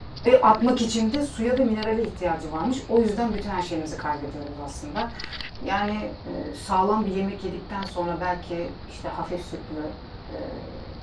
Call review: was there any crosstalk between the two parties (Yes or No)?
No